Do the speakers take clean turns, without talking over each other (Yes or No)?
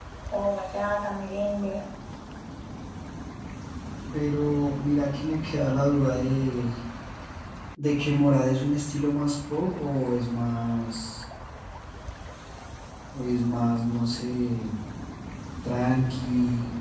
Yes